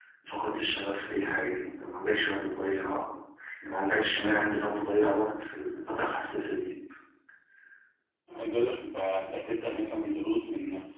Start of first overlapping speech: none

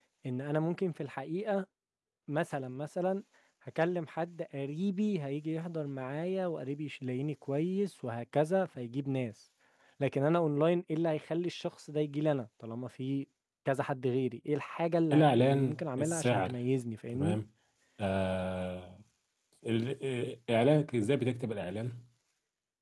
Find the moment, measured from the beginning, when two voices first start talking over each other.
15.1 s

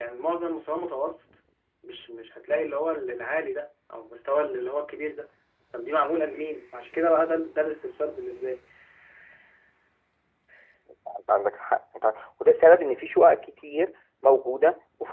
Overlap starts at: none

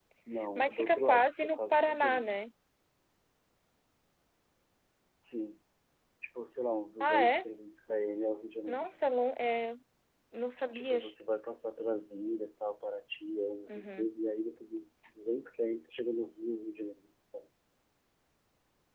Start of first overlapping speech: 0.6 s

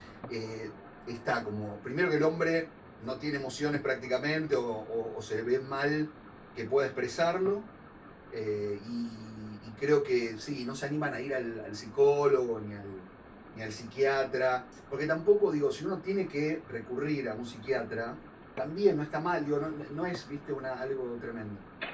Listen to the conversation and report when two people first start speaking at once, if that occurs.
none

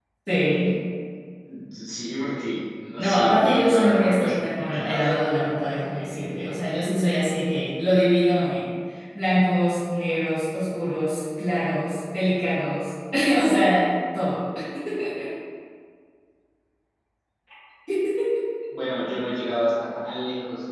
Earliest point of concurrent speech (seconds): 3.0 s

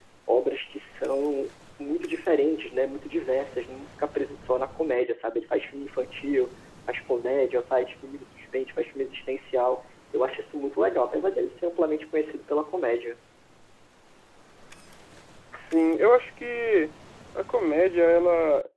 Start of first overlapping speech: none

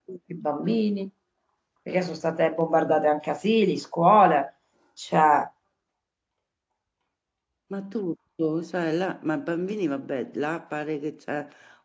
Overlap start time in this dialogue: none

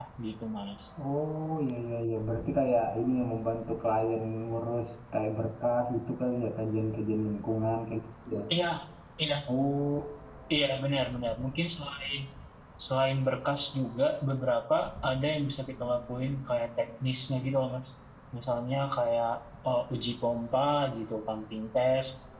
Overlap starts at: none

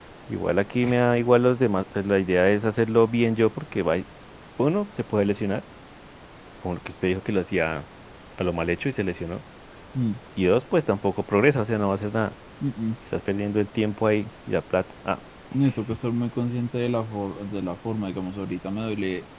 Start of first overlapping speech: none

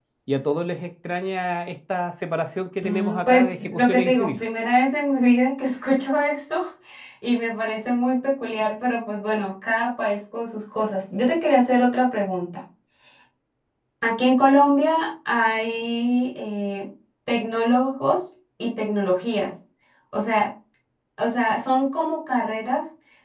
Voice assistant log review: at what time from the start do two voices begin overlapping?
2.8 s

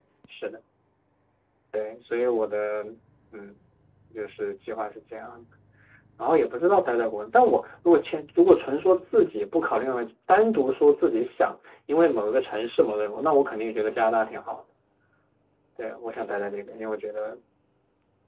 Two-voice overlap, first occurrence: none

